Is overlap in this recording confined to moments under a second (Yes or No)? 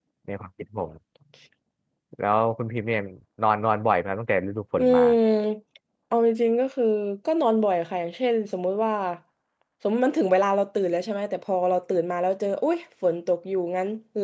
Yes